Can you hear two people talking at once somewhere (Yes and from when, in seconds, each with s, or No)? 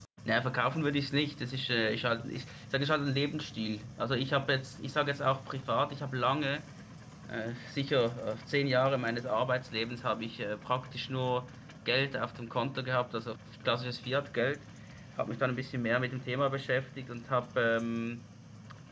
No